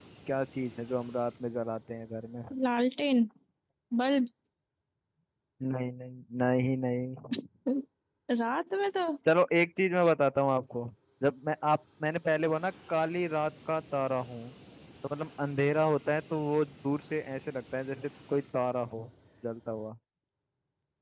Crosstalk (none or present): none